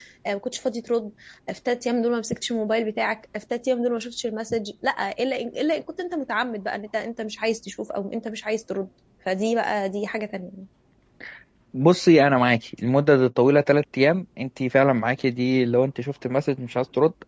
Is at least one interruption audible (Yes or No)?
No